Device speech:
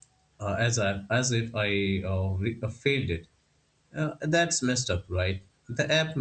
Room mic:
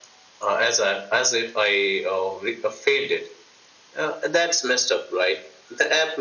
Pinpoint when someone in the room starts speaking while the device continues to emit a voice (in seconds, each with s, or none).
none